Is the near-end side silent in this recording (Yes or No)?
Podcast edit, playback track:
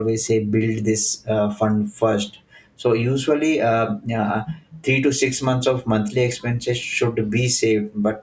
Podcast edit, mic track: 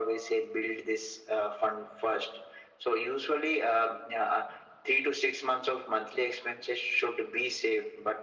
Yes